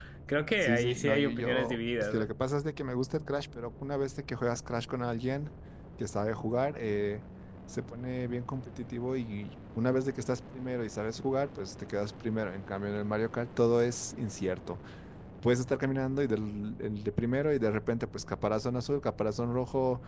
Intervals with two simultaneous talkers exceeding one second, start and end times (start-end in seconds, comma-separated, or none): 0.6-2.3